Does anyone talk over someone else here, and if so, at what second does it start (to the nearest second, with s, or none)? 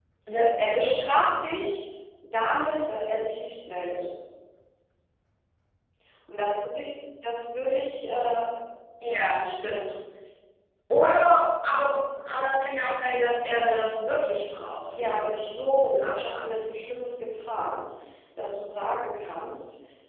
15 s